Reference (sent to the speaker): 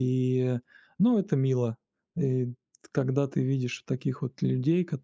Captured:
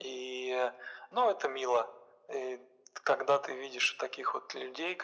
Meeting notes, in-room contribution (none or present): none